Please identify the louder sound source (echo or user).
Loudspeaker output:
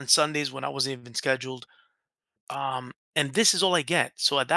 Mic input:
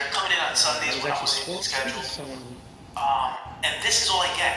echo